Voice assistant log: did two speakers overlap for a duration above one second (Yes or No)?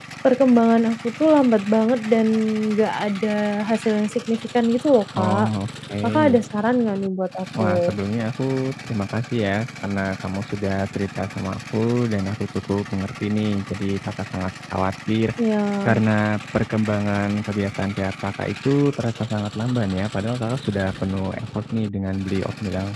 No